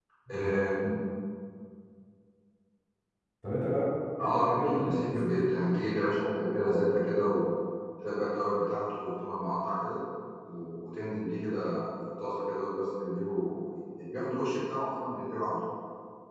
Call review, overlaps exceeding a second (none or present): present